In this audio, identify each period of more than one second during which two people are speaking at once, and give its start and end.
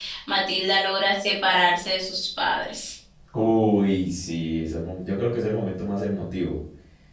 none

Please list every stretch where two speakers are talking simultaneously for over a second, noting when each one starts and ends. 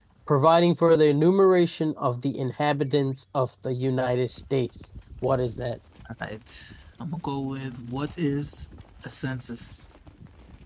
none

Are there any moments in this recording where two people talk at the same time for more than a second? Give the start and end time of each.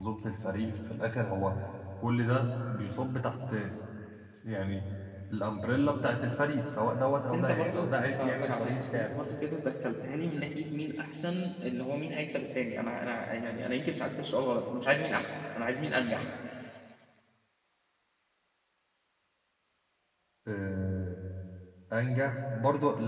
7.3-9.1

